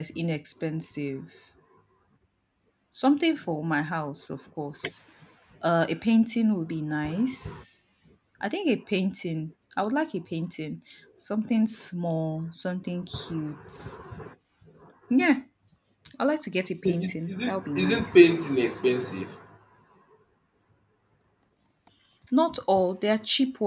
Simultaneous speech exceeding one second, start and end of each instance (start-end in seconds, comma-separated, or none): 16.8-18.4